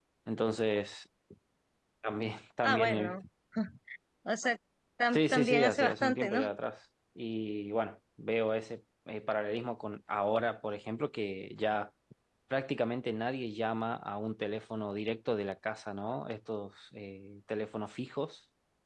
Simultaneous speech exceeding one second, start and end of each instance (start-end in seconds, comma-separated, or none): 5.1-6.4